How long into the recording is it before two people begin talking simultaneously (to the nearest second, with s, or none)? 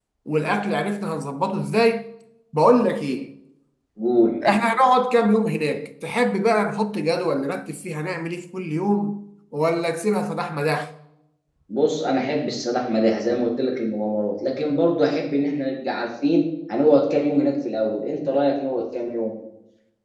none